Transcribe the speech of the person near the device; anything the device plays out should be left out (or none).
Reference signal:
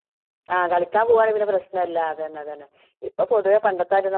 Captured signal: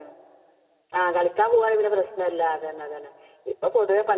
none